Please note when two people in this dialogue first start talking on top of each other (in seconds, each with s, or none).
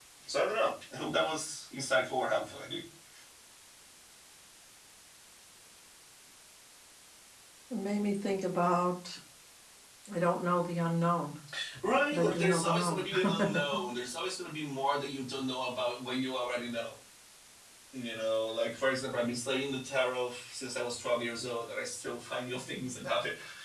12.1 s